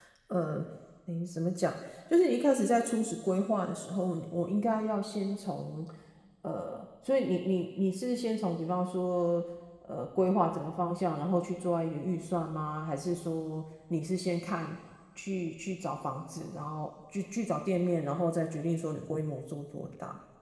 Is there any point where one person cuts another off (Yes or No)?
No